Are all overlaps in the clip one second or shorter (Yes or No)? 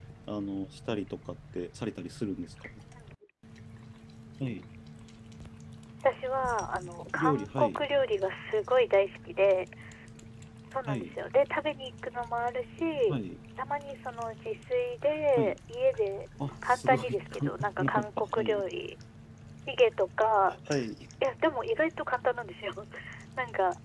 No